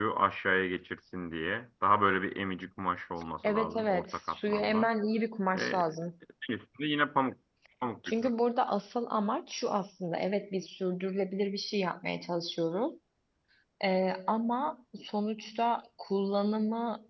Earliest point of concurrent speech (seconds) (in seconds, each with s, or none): 3.4 s